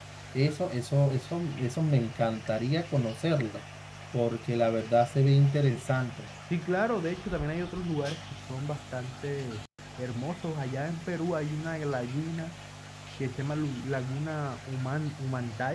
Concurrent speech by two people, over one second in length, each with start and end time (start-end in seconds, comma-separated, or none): none